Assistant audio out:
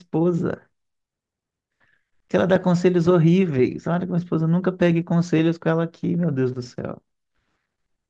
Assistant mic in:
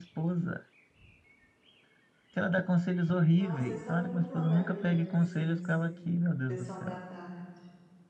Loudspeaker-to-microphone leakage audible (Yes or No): Yes